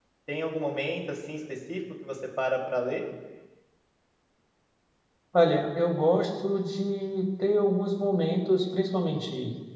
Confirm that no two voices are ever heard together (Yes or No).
Yes